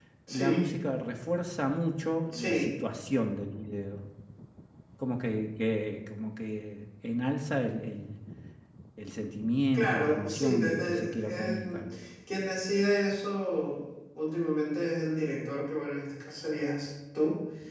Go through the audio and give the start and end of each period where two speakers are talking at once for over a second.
9.7-11.8

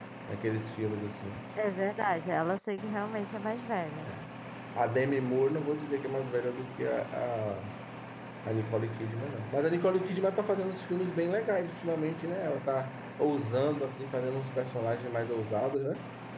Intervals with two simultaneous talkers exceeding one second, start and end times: none

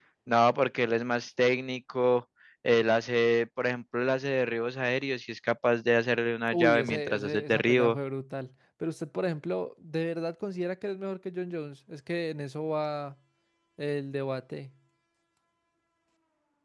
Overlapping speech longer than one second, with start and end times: 6.5-8.0

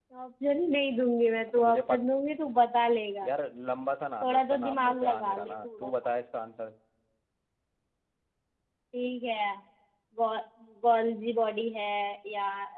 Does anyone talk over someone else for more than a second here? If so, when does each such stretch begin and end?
4.2-5.9

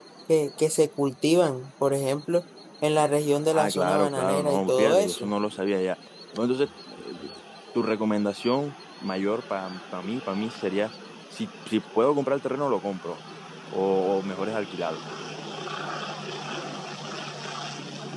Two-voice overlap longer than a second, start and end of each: 3.5-5.3

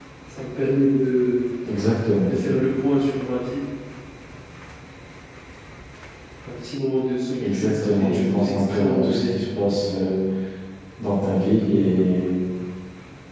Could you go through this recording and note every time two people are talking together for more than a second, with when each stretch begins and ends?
7.4-9.4

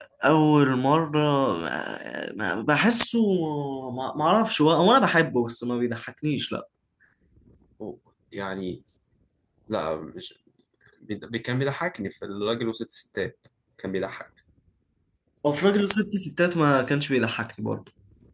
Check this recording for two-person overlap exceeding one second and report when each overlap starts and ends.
none

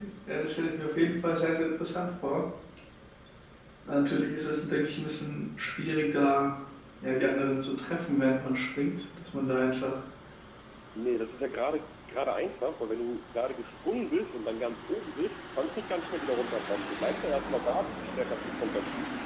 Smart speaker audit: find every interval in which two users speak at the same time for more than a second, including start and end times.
none

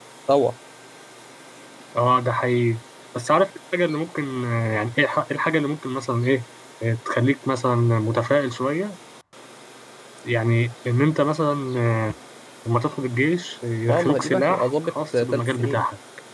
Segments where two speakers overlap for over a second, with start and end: 13.9-15.8

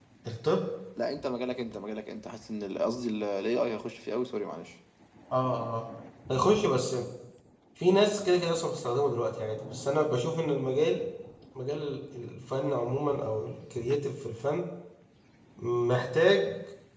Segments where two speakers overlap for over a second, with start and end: none

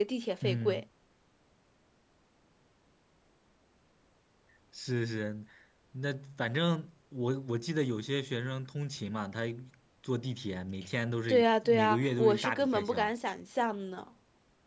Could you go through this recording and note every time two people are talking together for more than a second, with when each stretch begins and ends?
11.3-13.1

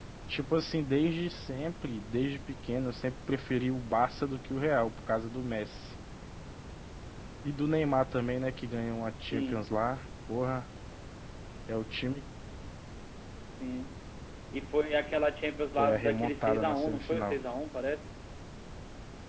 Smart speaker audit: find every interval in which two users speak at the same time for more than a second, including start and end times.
15.8-17.4

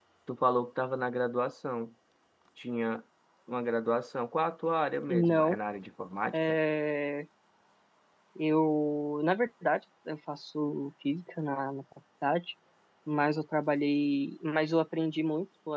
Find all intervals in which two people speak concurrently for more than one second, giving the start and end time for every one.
none

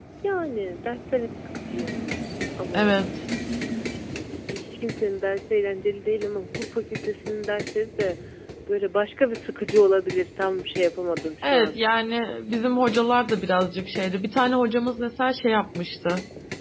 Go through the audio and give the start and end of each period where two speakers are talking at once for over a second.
none

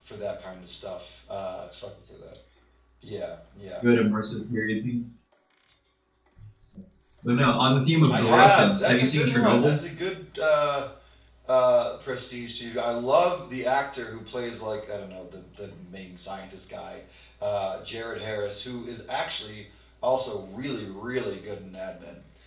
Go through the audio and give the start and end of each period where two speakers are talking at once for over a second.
8.1-9.8

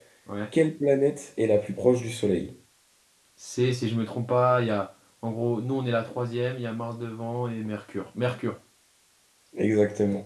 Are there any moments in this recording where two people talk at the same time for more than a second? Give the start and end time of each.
none

